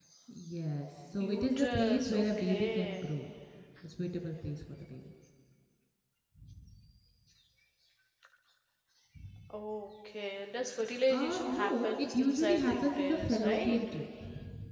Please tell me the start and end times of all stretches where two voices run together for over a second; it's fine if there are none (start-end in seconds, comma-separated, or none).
1.2-3.0, 11.1-13.8